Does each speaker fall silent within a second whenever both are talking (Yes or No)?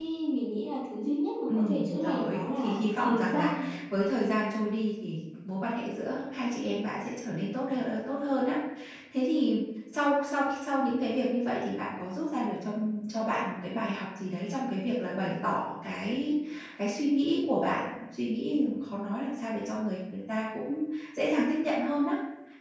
No